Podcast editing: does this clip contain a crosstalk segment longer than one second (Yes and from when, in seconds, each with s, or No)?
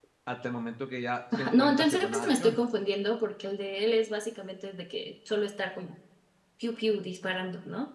Yes, from 1.3 s